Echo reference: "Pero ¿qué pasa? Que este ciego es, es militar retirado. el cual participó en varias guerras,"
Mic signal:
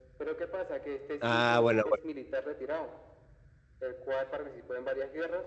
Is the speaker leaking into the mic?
Yes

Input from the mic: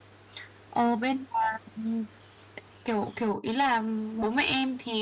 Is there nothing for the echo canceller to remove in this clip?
No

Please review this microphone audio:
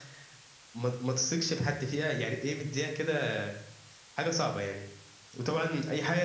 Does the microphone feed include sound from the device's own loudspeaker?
Yes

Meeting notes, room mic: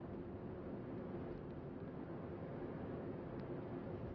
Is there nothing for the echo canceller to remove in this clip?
Yes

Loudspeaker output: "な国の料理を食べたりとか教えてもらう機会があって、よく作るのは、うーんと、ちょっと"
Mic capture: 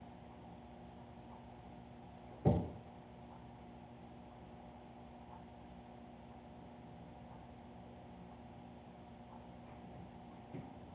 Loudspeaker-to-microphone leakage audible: No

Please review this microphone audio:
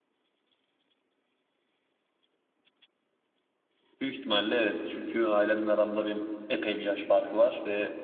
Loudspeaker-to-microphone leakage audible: No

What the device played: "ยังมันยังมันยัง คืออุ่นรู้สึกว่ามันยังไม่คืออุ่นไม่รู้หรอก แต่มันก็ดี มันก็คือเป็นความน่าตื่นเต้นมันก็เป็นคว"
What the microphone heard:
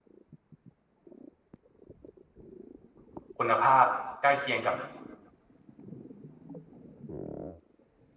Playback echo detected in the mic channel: No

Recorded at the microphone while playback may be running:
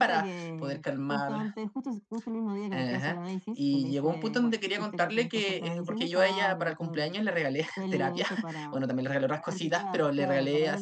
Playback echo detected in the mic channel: Yes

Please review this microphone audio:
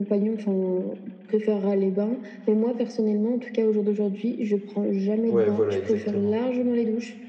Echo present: Yes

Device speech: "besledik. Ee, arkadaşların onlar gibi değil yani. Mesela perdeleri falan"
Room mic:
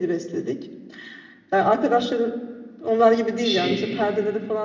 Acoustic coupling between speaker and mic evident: Yes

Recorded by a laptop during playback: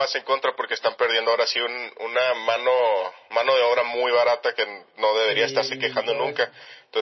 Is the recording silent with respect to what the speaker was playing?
No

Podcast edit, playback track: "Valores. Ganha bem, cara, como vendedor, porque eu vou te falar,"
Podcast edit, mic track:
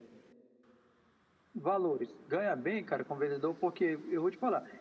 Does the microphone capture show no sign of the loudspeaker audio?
No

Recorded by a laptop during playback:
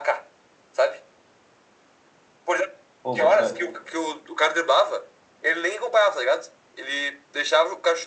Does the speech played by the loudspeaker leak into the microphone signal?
Yes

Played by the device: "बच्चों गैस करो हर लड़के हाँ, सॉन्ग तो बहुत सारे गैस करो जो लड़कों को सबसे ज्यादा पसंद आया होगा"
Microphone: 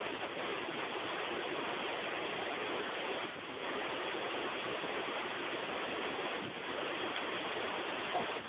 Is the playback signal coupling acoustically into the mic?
No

